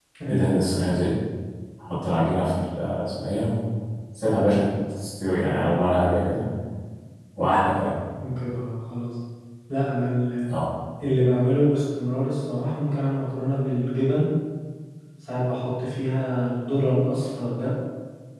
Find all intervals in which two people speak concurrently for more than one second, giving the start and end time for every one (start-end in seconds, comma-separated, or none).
none